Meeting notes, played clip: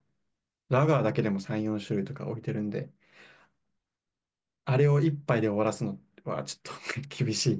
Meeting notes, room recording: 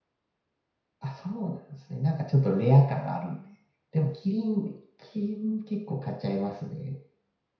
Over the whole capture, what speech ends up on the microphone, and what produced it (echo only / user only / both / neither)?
user only